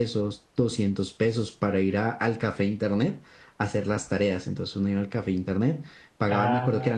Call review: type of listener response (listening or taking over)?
taking over